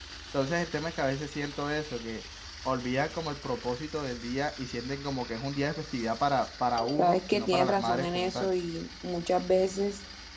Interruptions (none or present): present